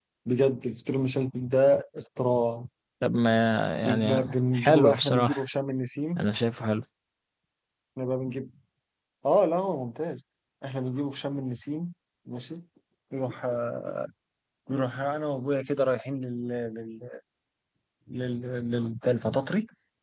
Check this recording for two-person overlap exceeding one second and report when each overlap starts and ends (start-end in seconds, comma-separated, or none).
3.8-5.4